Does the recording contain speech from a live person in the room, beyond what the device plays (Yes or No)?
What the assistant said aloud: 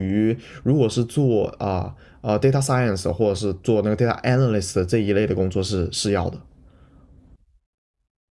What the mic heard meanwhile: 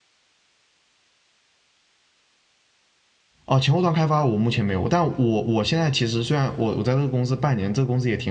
Yes